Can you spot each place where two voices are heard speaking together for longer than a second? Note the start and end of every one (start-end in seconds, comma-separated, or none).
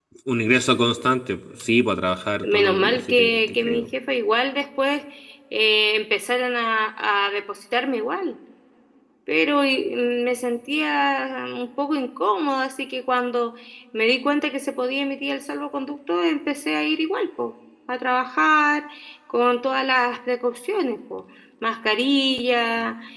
2.4-3.9